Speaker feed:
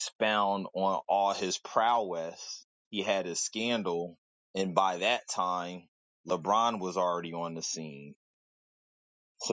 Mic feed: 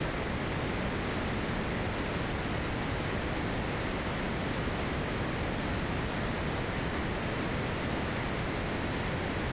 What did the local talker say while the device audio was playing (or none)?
none